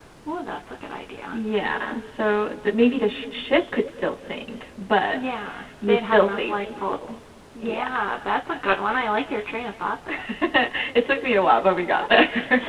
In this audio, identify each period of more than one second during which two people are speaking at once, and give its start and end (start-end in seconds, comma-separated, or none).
5.9-7.1